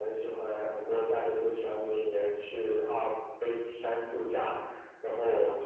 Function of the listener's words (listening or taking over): listening